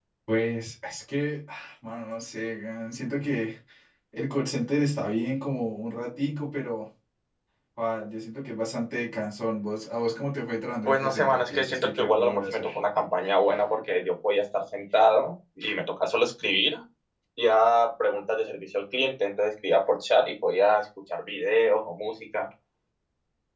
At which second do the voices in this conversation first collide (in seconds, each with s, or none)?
10.8 s